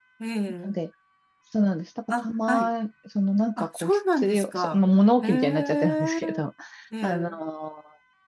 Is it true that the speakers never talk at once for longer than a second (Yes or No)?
No